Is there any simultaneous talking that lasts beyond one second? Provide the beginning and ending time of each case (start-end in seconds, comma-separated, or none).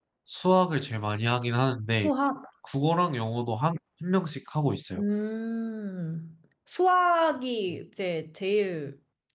none